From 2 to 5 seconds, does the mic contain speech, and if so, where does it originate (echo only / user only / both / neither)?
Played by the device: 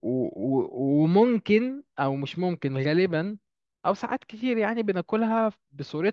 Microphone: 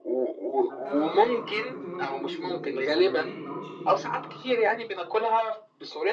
both